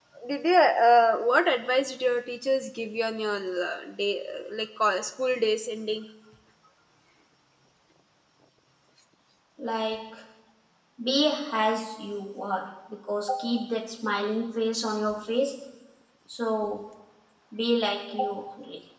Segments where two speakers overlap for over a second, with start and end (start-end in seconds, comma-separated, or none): none